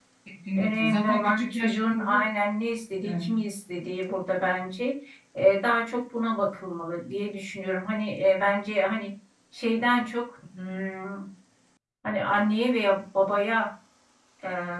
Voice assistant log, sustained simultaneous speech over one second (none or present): present